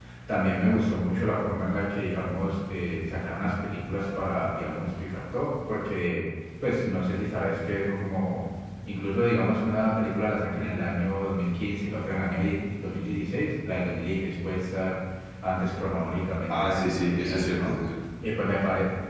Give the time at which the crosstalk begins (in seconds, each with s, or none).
16.5 s